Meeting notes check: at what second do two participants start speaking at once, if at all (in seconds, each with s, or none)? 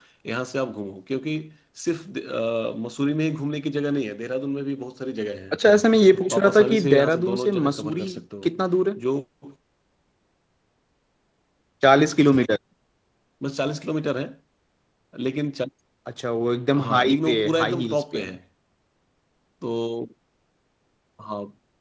6.3 s